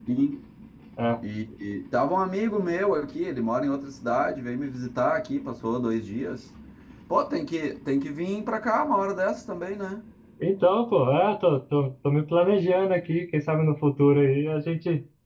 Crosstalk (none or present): none